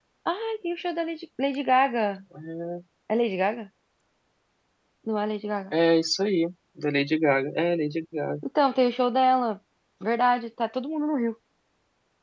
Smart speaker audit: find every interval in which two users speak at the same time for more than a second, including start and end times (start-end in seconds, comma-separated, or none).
none